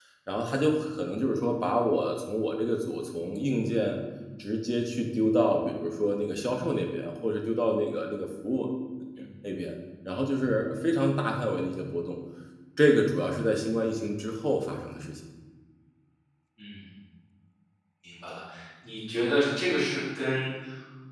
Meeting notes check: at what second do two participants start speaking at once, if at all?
none

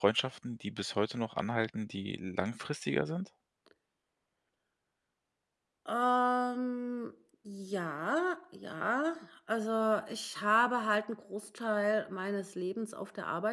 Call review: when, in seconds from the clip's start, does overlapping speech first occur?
none

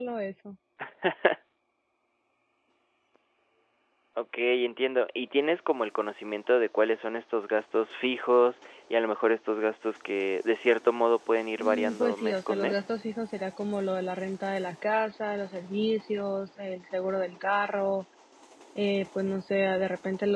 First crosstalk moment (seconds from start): 11.6 s

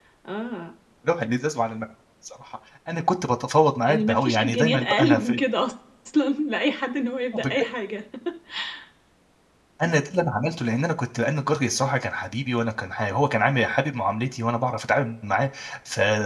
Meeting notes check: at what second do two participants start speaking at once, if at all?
3.9 s

